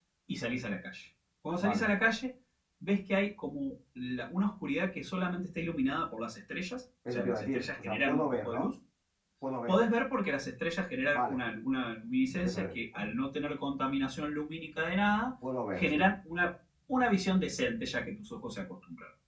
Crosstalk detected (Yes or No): Yes